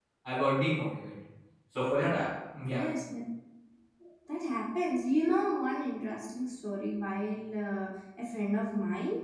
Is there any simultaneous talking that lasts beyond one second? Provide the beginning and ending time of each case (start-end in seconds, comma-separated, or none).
none